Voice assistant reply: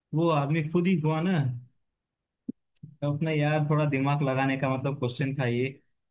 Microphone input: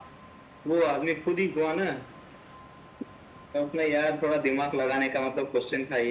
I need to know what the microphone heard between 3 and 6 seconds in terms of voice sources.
echo only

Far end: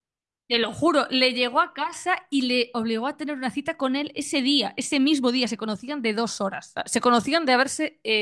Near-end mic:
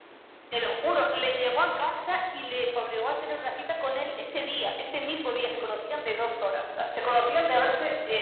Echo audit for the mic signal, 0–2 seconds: echo only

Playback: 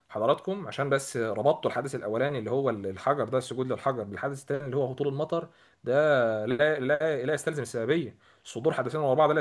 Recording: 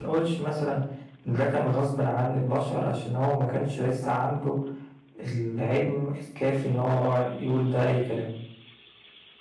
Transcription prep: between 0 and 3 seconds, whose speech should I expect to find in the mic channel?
user only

